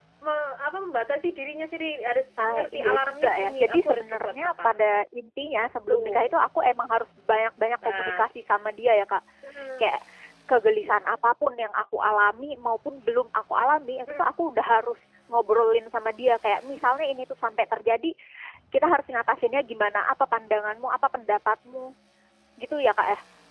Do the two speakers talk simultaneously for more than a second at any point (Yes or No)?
Yes